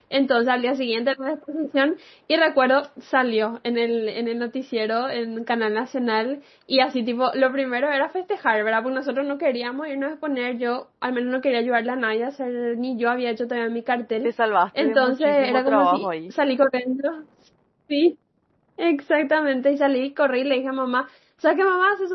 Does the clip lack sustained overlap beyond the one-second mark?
No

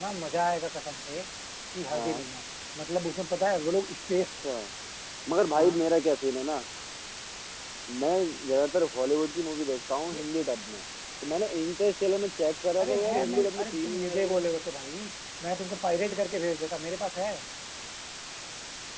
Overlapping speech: Yes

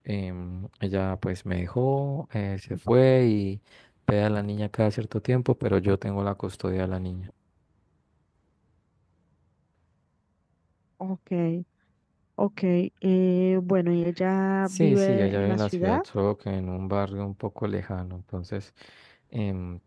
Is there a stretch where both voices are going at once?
Yes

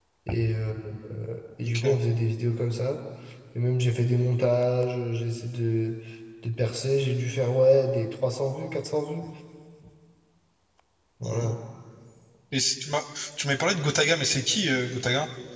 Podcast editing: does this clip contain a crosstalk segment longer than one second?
No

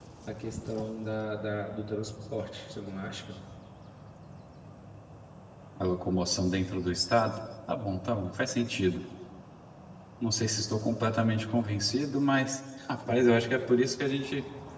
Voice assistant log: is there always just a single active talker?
Yes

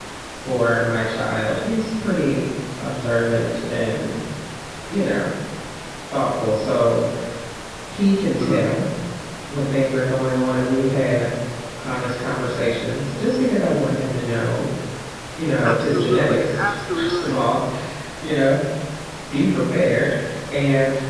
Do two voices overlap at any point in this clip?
Yes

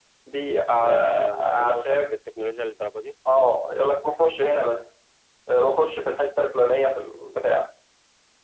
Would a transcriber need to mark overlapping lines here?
Yes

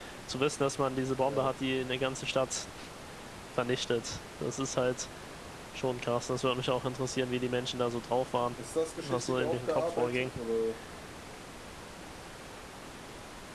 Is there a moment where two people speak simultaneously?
Yes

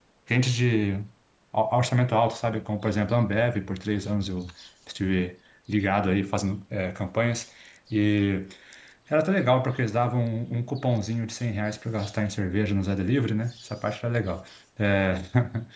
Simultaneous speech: No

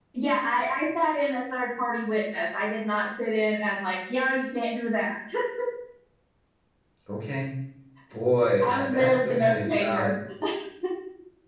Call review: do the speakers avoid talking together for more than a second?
No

